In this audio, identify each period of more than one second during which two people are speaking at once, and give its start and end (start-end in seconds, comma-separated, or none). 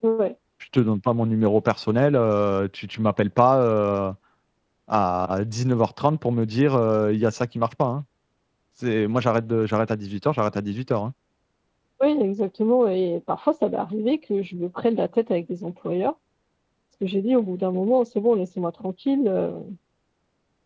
none